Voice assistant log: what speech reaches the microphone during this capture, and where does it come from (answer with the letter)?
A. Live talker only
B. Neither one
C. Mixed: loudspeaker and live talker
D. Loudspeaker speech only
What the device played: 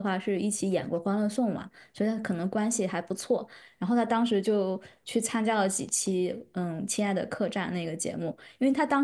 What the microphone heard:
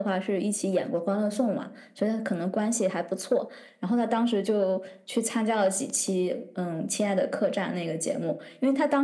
D